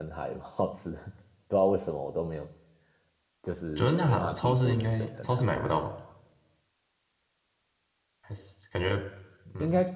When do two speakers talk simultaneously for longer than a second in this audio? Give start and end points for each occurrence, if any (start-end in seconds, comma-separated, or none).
3.8-5.7